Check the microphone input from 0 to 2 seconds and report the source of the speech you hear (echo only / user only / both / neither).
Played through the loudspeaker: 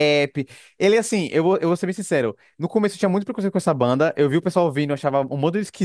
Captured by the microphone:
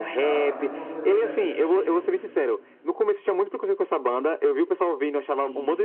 both